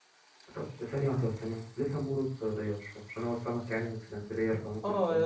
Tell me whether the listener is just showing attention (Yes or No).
No